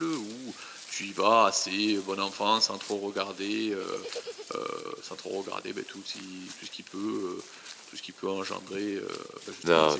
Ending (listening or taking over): taking over